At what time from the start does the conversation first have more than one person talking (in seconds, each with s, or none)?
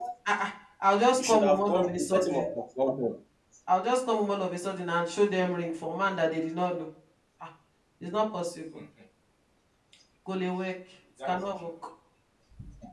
1.2 s